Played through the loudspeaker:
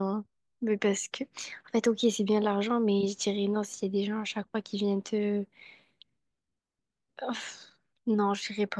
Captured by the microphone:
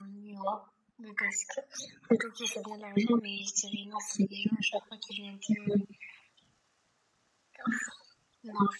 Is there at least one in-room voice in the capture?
No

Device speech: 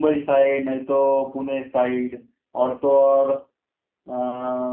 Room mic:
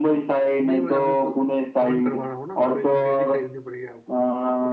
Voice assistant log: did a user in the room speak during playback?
Yes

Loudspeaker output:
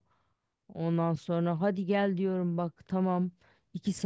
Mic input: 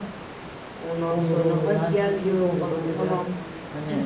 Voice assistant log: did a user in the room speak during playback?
Yes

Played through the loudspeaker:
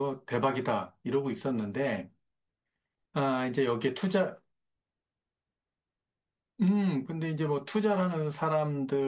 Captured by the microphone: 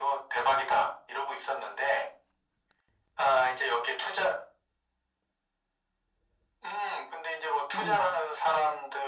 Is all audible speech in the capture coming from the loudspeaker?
No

